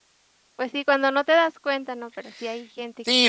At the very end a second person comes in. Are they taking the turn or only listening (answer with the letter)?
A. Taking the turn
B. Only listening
A